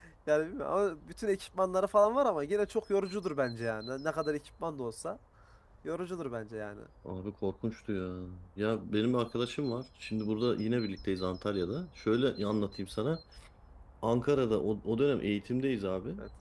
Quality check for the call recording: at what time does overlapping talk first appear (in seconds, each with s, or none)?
none